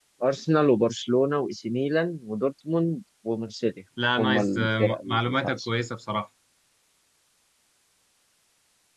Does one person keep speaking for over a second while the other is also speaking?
Yes, from 4.0 s

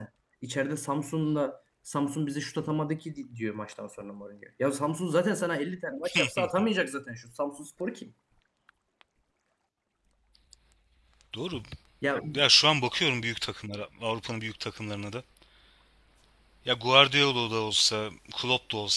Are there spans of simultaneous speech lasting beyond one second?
No

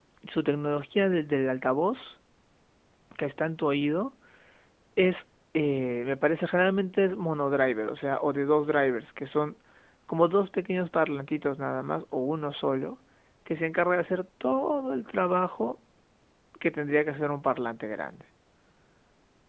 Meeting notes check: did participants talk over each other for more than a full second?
No

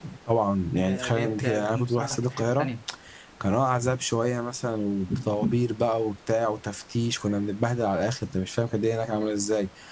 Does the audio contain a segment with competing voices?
Yes, from 0.7 s

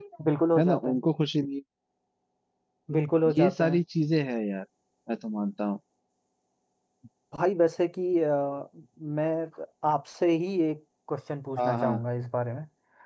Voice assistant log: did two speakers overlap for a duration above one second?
No

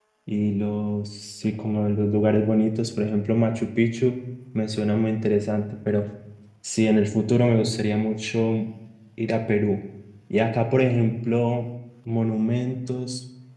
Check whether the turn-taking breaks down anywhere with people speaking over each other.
No

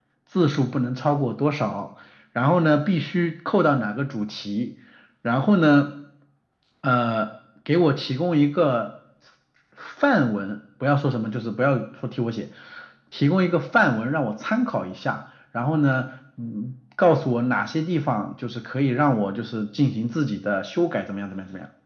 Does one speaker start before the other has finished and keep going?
No

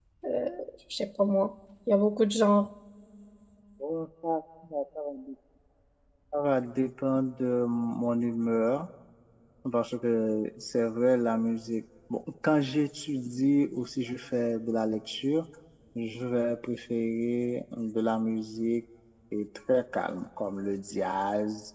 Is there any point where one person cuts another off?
No

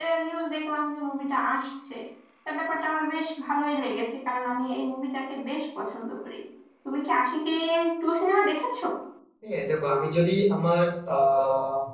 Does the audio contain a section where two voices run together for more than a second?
No

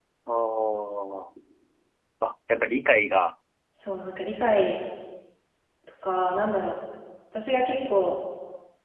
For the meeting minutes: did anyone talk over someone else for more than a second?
No

